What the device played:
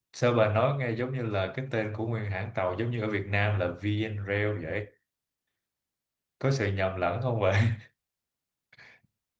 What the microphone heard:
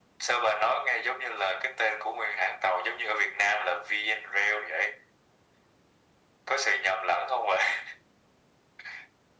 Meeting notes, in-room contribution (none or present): none